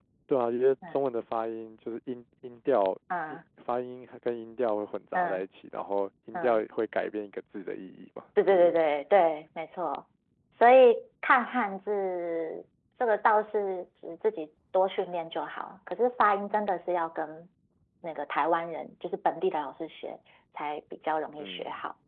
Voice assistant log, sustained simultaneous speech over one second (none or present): none